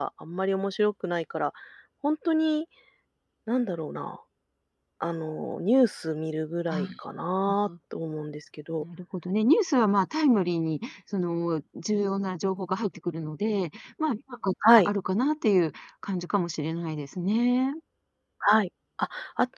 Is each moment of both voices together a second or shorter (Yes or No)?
Yes